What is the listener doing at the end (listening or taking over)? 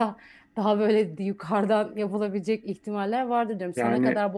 listening